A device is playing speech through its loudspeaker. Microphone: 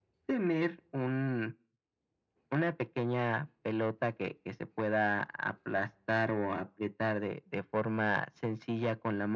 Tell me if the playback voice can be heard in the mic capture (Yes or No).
Yes